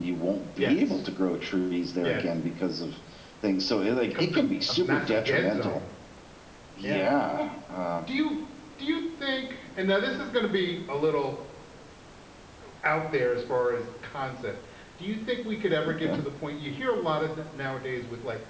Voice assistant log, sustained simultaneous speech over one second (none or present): present